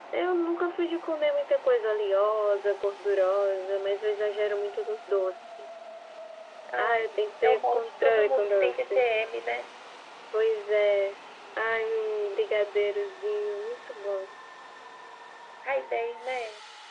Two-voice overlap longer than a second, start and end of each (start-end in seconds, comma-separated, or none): 7.4-9.1